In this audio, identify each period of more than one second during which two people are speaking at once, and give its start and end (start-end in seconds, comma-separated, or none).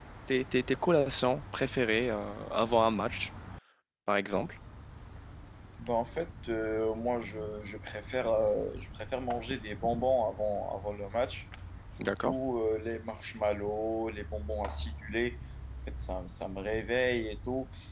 none